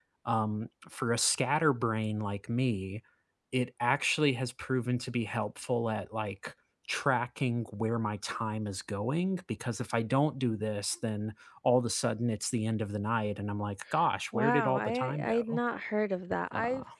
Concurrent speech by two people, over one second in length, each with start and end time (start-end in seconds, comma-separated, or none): 14.3-15.6